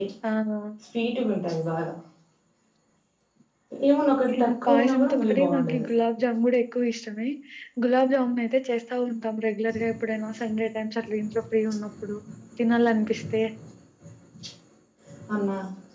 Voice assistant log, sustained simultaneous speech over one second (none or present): present